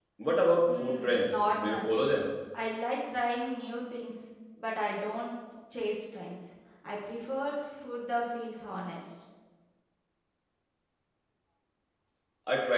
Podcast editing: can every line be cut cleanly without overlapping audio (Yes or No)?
No